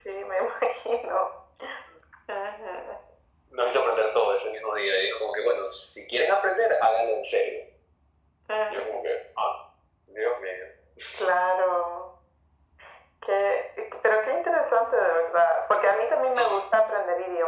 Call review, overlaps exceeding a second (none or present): none